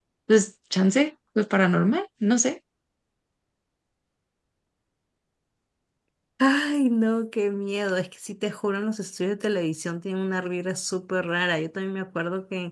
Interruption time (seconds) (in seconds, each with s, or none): none